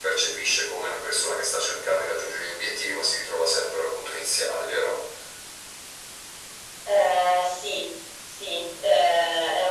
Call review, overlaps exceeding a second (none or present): none